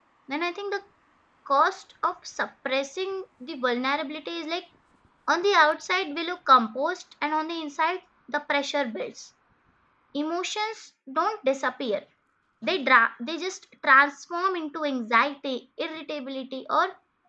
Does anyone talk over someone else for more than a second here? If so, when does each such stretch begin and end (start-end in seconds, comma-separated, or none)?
none